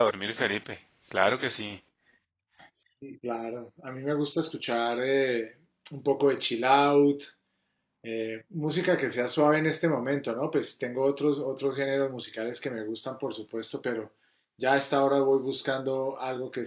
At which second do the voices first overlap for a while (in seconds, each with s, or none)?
none